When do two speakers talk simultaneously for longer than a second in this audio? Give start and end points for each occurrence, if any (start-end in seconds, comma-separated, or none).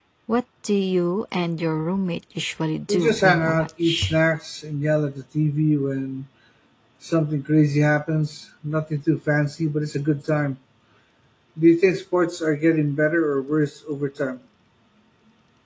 2.9-4.2